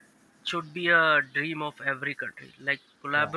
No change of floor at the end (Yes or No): Yes